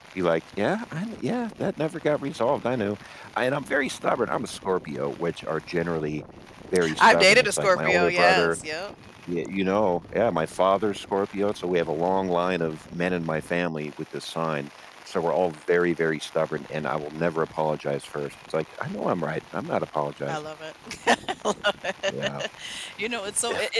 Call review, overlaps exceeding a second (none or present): present